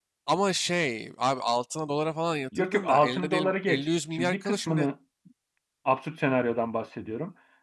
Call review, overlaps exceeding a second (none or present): present